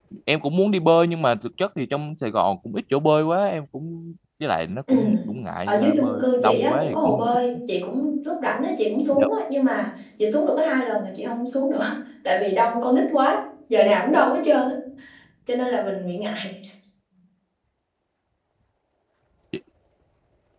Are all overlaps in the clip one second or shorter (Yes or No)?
No